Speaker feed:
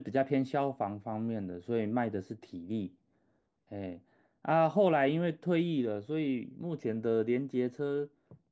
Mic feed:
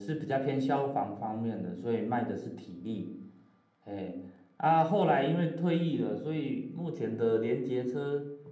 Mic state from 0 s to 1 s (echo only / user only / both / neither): echo only